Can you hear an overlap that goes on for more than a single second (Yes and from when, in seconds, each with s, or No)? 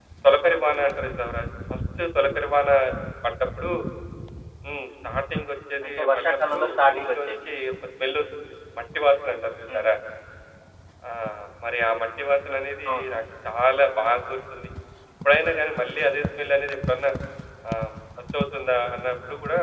Yes, from 5.8 s